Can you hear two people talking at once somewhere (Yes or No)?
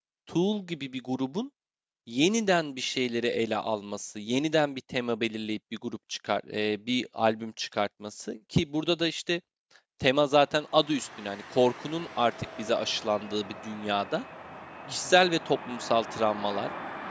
No